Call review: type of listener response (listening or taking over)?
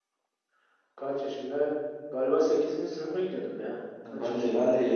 taking over